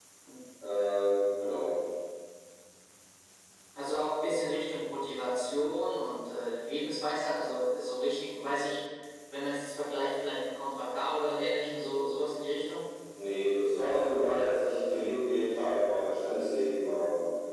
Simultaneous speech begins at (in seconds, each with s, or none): none